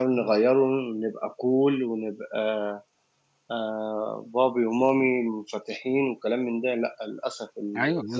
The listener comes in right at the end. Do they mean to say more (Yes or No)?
Yes